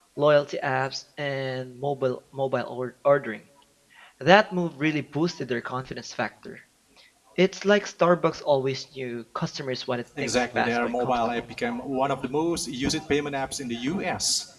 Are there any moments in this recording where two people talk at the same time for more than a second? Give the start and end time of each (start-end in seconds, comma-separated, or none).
10.2-11.4